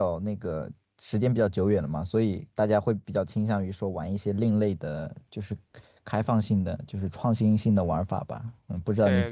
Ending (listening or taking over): taking over